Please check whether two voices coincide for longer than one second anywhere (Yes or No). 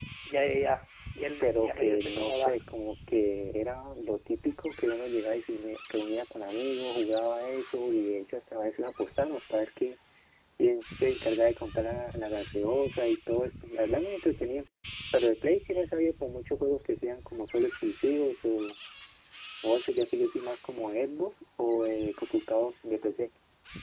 Yes